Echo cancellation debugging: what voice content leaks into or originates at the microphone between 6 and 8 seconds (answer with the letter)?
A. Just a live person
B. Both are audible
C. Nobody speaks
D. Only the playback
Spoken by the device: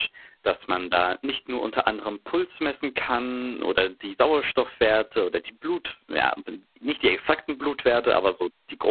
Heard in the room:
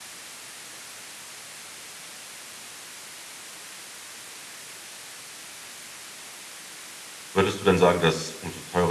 A